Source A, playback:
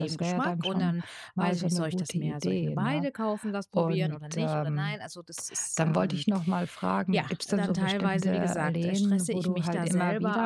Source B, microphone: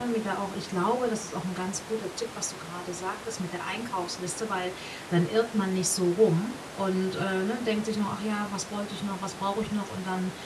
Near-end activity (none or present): present